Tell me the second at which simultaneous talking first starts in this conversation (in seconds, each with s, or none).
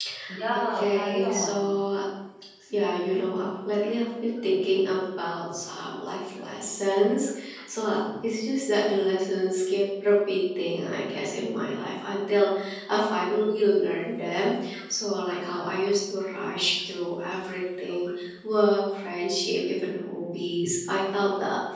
0.5 s